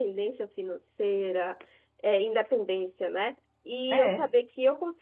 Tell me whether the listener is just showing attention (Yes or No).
Yes